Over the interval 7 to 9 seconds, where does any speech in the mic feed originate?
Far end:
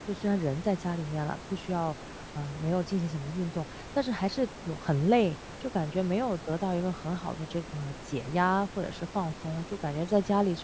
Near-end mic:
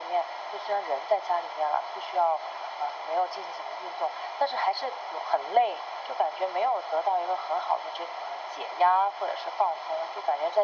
echo only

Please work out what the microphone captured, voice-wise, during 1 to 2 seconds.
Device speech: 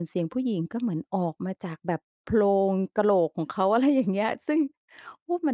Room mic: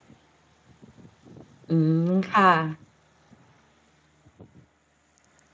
user only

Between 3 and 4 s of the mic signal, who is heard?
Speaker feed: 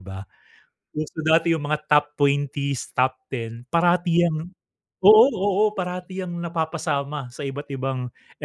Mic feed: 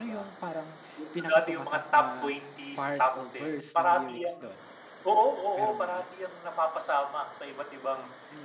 both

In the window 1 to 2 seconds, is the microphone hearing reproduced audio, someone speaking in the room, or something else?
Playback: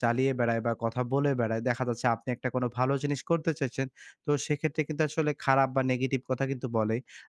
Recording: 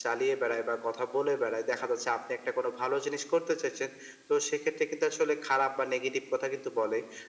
echo only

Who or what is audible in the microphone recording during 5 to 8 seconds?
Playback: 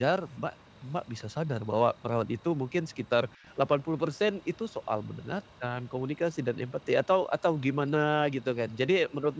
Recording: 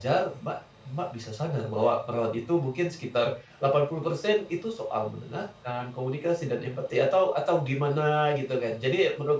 echo only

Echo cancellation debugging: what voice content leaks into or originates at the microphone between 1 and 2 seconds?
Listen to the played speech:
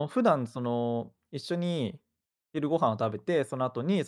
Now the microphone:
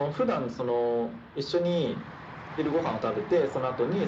echo only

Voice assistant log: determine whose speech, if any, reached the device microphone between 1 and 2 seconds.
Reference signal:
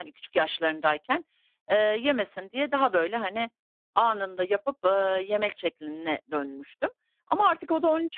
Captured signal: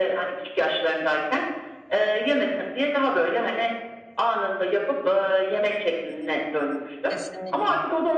echo only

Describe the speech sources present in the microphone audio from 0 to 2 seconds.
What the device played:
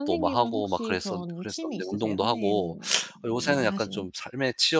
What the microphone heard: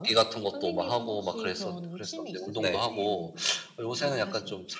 echo only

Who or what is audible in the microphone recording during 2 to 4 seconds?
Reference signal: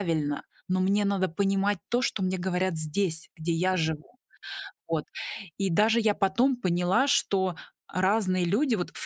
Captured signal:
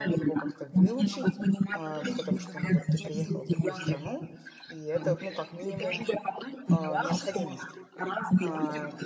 both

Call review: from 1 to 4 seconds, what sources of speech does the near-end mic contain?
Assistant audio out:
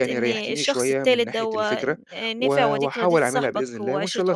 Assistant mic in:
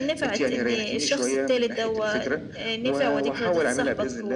echo only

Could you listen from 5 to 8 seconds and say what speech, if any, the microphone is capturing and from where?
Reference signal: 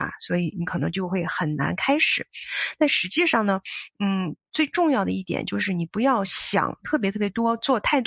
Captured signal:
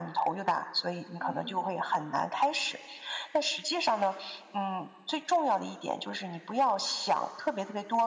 echo only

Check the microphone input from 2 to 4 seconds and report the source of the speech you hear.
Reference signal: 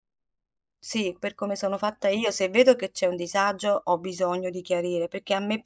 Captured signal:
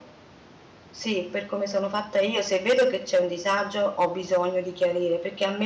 echo only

